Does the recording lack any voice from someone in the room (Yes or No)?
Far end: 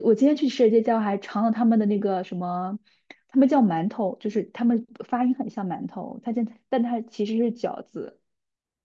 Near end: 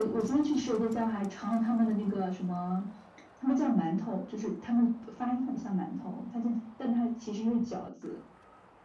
Yes